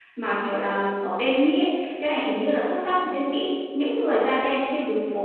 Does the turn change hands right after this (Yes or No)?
No